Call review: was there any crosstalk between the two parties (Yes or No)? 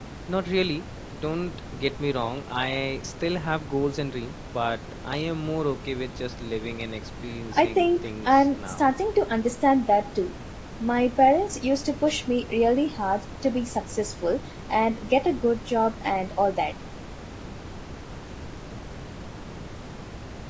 Yes